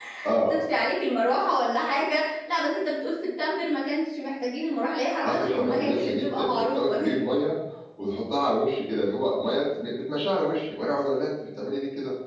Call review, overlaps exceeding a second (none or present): present